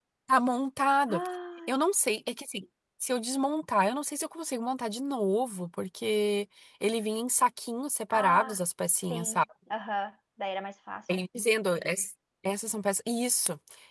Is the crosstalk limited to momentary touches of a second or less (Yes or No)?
Yes